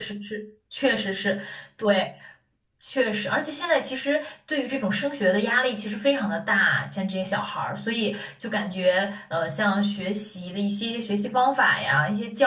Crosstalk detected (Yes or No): No